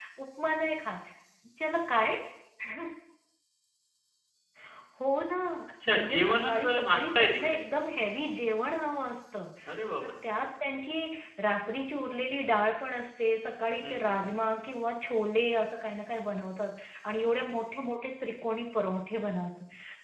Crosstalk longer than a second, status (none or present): present